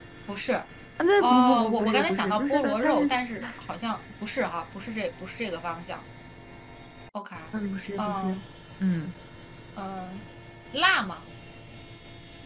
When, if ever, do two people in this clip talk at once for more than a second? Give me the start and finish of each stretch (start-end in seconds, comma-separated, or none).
1.2-3.0